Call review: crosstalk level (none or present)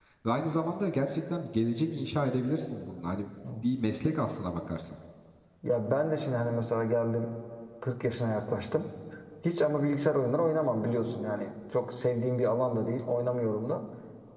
none